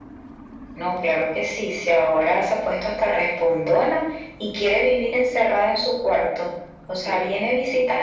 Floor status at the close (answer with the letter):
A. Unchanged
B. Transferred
A